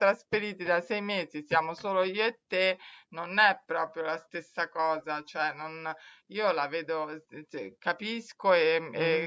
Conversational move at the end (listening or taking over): listening